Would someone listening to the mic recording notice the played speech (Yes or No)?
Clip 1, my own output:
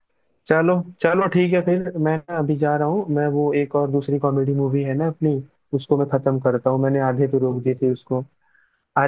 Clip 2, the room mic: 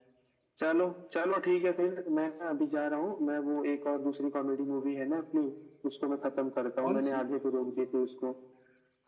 Yes